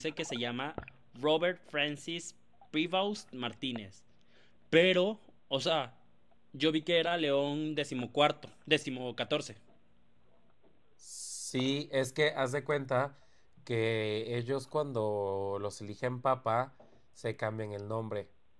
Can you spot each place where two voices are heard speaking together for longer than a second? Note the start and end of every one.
none

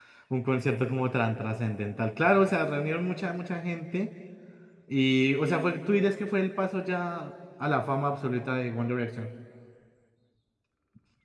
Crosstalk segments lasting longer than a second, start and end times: none

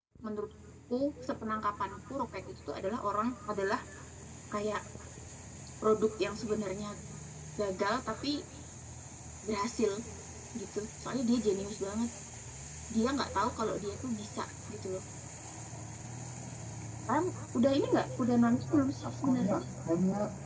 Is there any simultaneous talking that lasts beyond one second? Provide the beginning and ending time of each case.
18.4-19.6

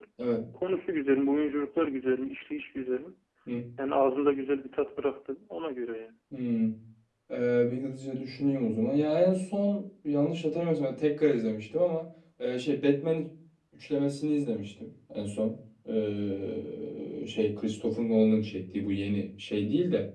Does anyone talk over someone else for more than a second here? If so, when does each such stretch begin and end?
none

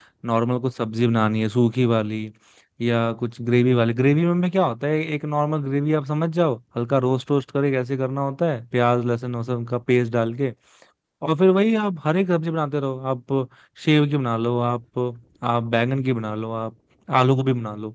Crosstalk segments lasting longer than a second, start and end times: none

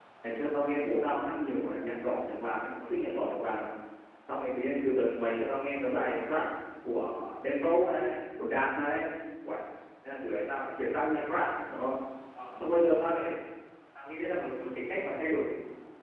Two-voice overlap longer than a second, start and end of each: none

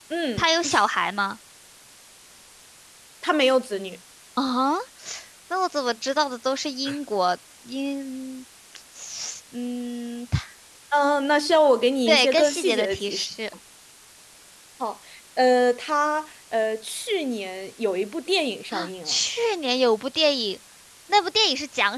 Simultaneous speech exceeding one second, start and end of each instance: 12.1-13.3

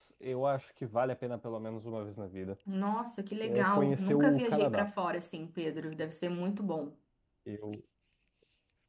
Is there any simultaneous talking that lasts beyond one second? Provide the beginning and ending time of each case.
3.4-4.9

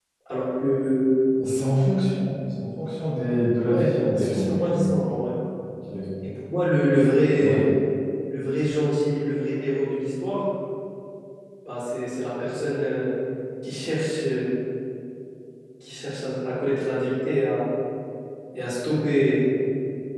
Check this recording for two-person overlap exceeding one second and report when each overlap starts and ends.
3.7-4.9

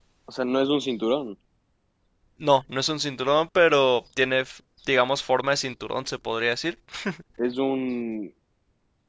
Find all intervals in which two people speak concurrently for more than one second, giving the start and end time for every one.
none

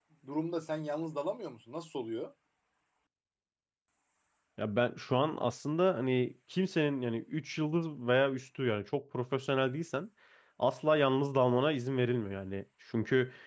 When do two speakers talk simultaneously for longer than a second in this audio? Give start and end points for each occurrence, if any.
none

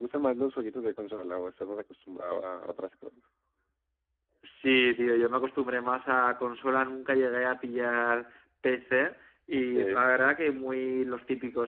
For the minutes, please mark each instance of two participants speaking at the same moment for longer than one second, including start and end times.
none

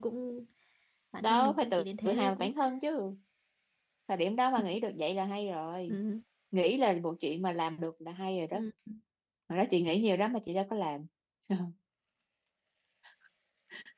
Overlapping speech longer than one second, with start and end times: 1.2-2.5

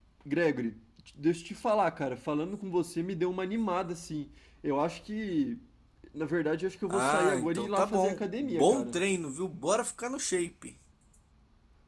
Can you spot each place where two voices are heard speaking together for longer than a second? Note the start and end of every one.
6.9-9.0

